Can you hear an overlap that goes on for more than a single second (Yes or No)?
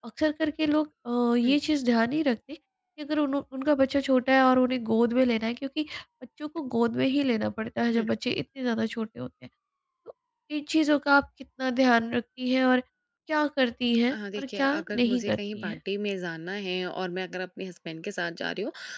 Yes